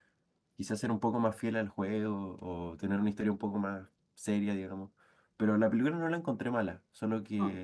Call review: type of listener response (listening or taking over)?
listening